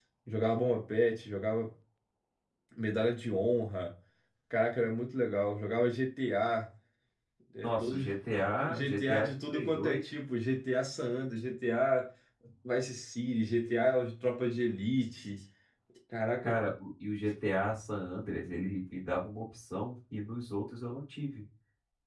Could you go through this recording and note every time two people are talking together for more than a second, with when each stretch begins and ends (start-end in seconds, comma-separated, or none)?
8.6-10.1